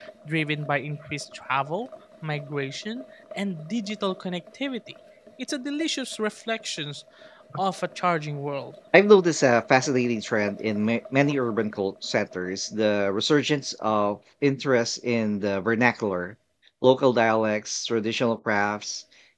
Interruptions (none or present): none